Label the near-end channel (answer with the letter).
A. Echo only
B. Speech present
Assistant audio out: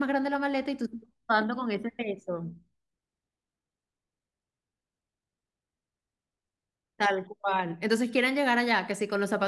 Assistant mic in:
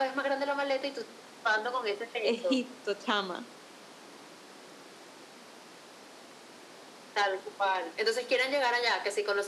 B